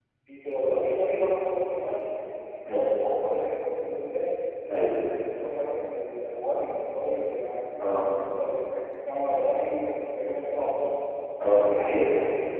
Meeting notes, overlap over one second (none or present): none